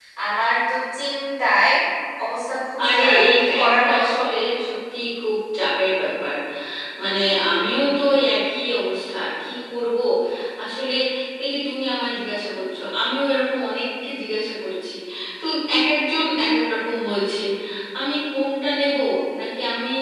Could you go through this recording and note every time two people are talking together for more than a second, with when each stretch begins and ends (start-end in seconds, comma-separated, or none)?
2.9-4.2